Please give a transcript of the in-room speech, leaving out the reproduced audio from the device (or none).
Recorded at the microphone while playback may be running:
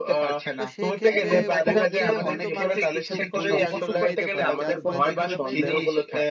তো সেই ক্ষেত্রে ভুল বুঝেও কিন্তু মানুষ কিছু ভুল ডিসিশন নিতে পারে। যার ফলে দেখা যাবে যে ওই